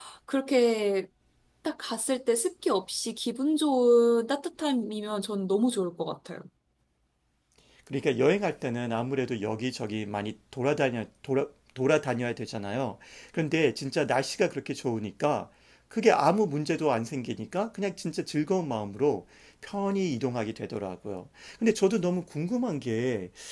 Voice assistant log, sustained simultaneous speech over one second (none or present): none